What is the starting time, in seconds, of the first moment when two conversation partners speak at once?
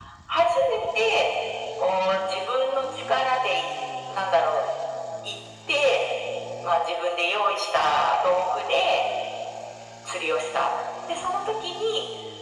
none

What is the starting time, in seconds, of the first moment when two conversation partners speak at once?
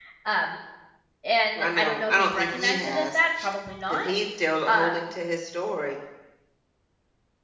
1.6 s

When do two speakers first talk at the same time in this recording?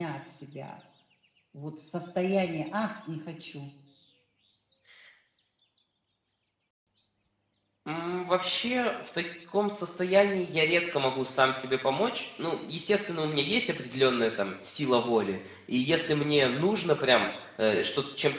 none

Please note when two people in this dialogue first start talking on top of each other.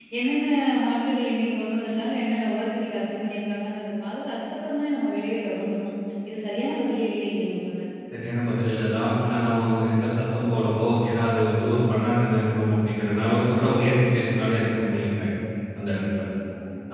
none

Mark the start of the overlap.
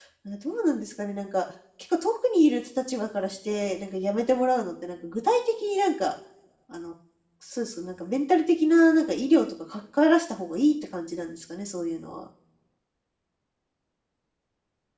none

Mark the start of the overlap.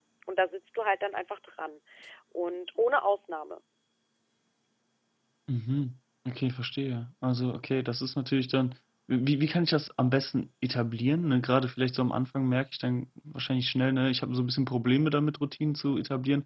none

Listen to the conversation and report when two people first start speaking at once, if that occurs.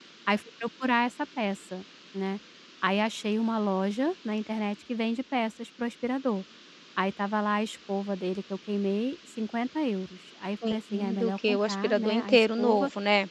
10.6 s

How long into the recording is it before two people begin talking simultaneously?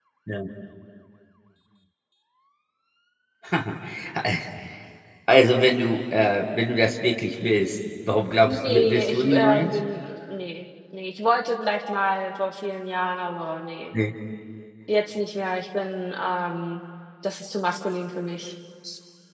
8.4 s

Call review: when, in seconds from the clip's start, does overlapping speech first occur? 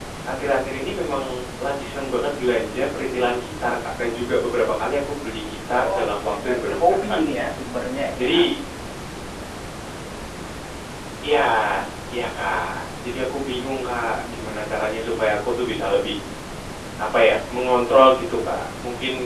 5.8 s

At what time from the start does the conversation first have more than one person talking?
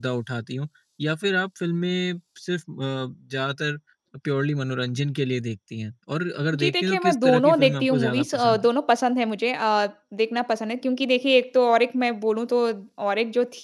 6.5 s

